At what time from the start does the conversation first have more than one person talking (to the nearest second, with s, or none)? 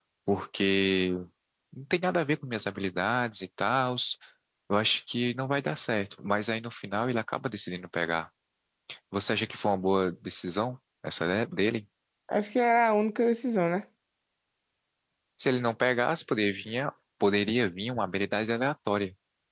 none